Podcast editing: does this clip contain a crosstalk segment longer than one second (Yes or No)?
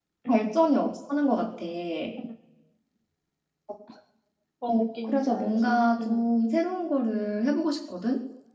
Yes